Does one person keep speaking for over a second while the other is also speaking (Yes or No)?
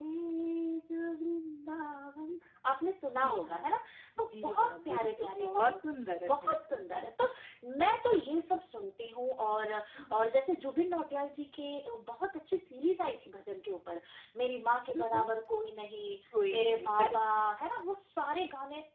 Yes